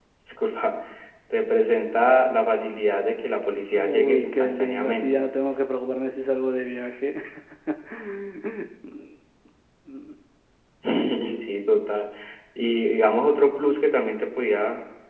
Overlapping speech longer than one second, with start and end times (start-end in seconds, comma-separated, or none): 3.7-5.0